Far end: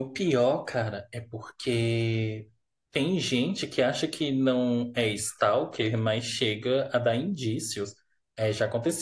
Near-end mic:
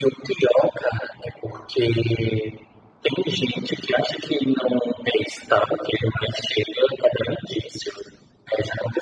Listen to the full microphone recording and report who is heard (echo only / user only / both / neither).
echo only